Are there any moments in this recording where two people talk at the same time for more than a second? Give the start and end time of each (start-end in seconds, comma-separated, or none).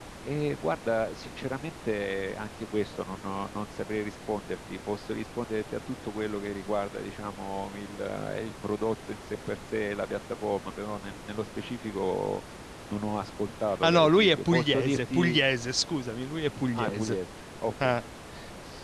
13.8-15.4